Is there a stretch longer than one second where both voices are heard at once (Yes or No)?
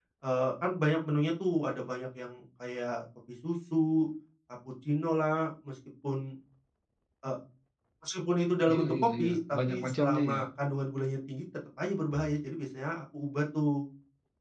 Yes